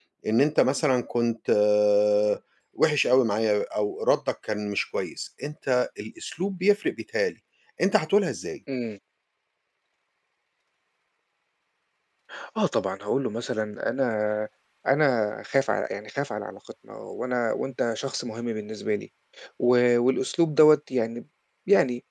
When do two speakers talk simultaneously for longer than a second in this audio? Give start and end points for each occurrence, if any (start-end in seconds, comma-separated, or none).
none